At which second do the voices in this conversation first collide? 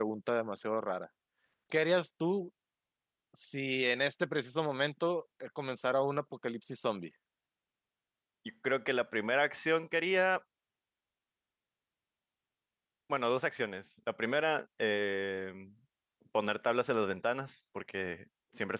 none

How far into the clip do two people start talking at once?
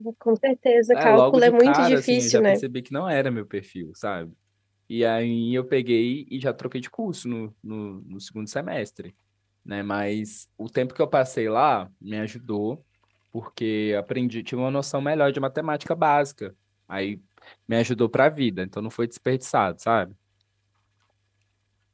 0.9 s

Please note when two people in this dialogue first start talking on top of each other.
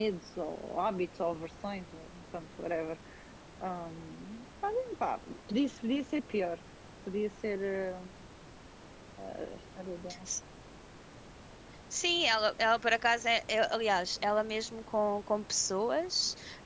none

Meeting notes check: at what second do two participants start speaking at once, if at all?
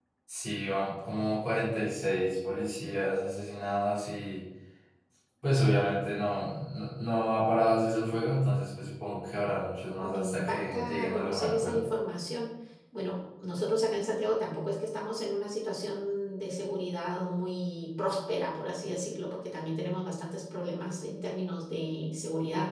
10.0 s

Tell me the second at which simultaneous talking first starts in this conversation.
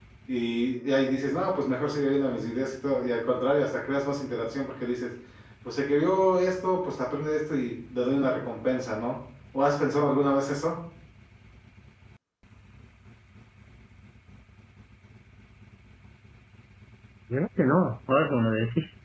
none

